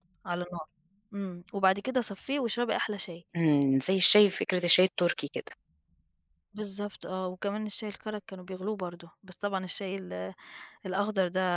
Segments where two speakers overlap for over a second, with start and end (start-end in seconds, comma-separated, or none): none